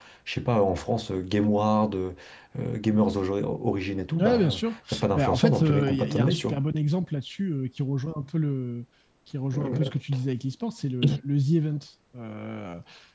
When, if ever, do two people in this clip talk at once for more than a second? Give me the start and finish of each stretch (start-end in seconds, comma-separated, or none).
5.2-6.6